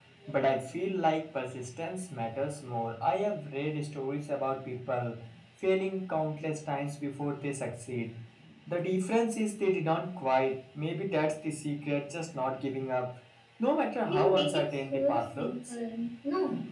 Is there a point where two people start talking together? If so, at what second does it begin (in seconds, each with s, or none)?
14.1 s